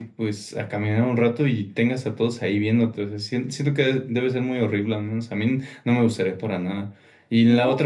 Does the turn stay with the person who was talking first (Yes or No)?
Yes